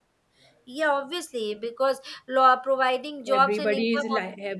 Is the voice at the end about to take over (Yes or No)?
Yes